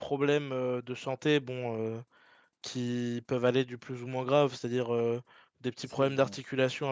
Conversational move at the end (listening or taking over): listening